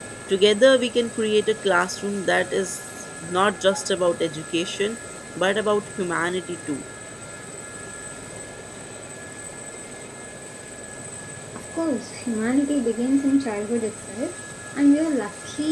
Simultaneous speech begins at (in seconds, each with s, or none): none